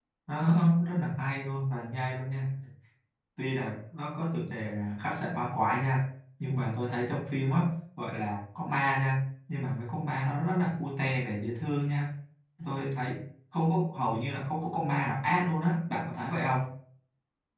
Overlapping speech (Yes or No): No